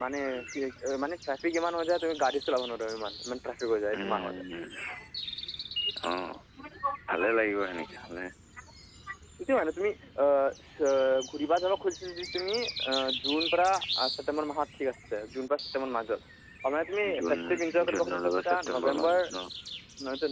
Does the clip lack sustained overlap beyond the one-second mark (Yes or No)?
No